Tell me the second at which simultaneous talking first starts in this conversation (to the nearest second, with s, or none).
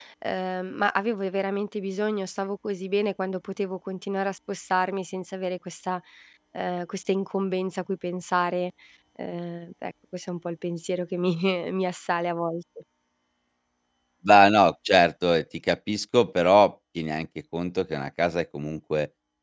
none